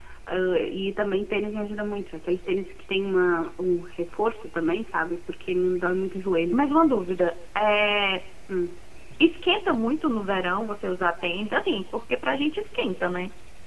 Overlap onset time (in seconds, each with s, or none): none